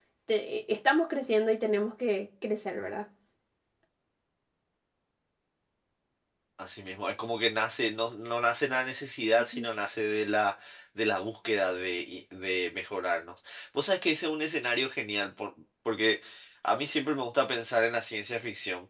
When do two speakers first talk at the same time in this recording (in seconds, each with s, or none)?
none